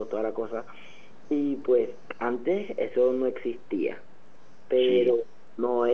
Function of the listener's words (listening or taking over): listening